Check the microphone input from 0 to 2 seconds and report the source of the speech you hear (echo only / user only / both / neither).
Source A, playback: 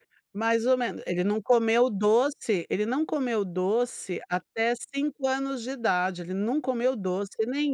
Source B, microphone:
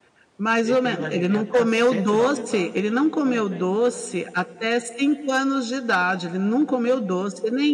both